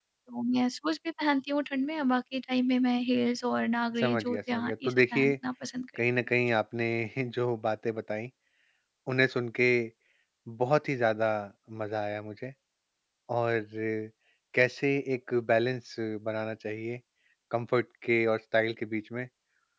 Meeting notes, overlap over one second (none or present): present